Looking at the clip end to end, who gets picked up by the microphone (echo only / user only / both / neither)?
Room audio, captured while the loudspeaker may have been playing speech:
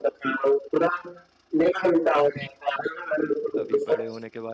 both